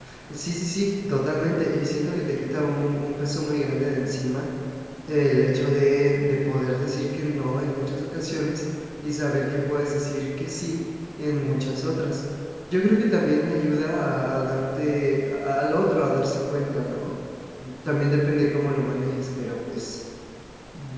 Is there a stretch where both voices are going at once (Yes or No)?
No